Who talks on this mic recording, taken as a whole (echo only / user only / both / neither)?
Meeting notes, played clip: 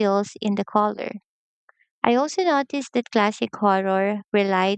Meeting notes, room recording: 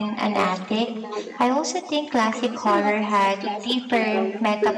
both